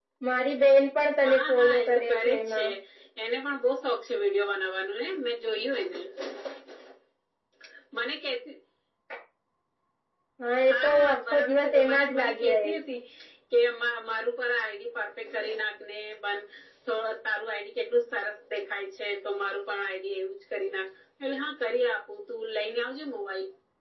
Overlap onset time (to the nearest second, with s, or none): 1 s